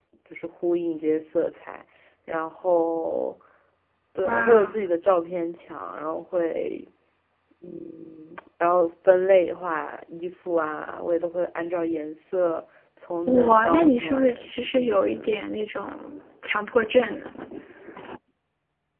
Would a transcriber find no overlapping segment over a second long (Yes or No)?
No